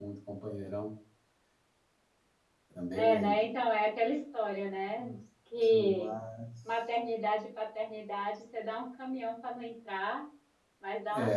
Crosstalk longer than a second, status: none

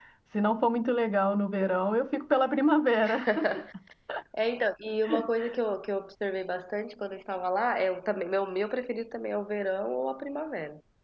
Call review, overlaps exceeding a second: none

